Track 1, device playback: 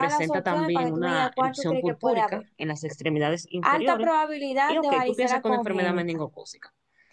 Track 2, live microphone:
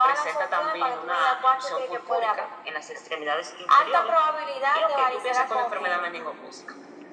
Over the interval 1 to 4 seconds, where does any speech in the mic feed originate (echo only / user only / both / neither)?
echo only